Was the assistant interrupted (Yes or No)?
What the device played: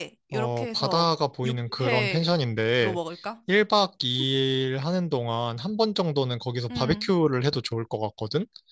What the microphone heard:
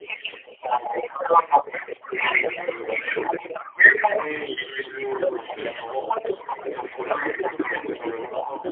Yes